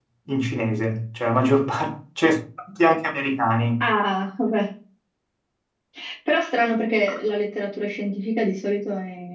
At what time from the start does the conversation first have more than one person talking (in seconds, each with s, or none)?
none